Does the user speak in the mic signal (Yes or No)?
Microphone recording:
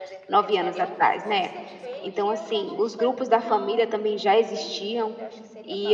Yes